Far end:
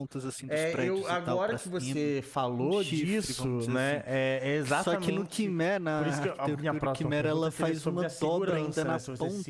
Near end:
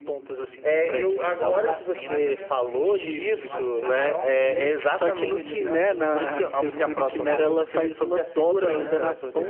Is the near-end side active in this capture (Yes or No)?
Yes